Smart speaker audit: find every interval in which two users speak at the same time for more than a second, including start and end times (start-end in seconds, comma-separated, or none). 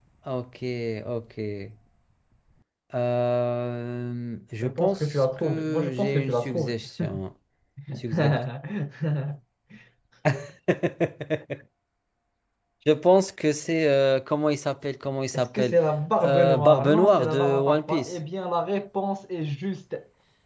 4.6-6.8, 16.2-18.2